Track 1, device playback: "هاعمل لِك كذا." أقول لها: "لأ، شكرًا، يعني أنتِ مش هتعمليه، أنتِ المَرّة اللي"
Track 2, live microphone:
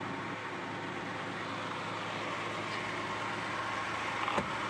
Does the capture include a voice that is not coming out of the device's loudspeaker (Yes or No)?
No